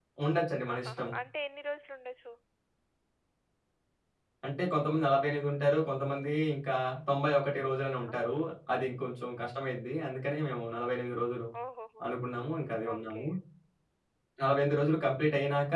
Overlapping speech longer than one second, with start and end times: none

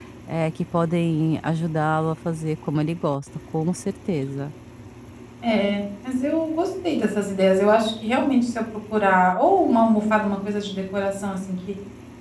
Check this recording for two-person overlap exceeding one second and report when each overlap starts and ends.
none

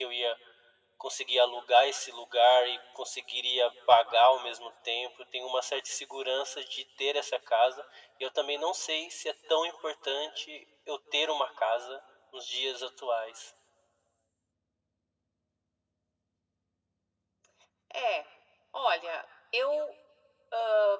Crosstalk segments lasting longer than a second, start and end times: none

